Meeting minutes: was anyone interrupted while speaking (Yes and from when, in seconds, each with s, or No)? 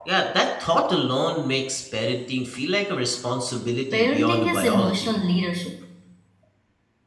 Yes, from 3.9 s